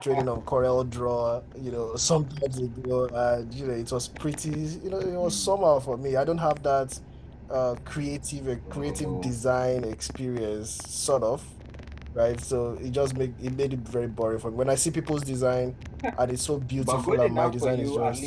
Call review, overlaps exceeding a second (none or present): present